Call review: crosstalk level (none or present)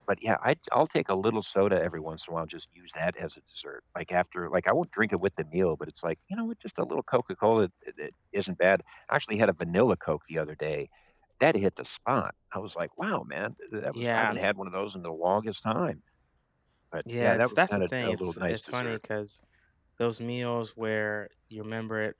present